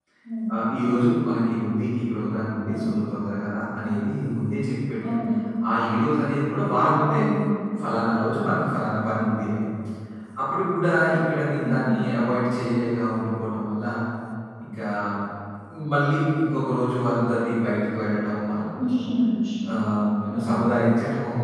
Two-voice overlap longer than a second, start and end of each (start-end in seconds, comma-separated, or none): none